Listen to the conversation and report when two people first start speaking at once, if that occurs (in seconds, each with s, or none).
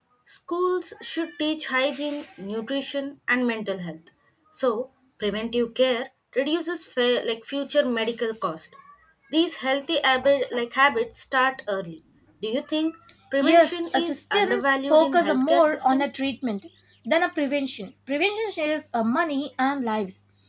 13.4 s